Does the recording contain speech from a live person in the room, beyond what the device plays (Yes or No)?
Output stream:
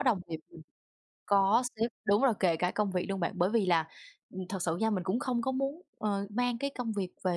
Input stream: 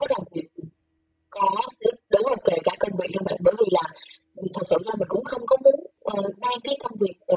No